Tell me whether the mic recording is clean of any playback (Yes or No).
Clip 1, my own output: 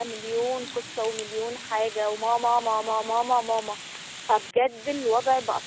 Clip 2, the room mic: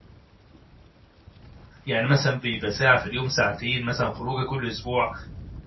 Yes